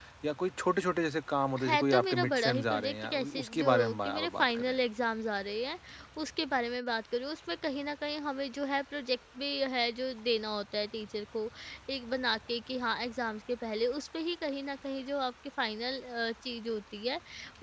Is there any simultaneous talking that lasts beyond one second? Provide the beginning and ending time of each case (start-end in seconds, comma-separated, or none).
1.6-4.8